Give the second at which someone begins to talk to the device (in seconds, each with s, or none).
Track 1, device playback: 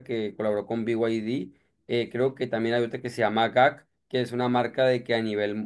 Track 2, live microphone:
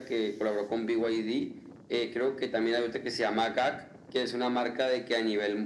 none